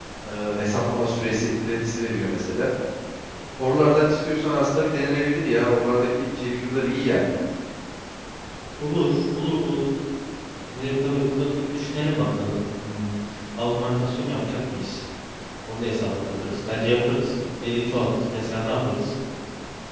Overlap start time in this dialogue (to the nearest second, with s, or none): none